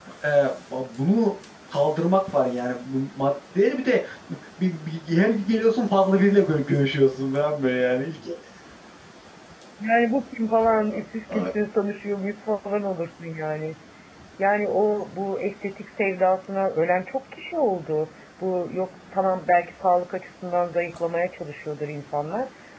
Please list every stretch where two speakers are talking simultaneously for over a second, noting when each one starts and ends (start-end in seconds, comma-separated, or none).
none